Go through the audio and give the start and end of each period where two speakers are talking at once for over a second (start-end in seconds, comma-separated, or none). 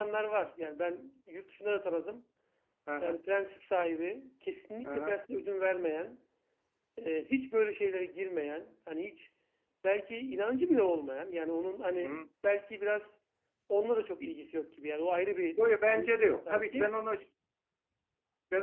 15.6-16.9